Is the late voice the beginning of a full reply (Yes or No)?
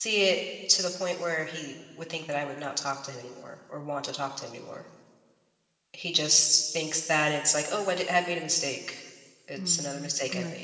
Yes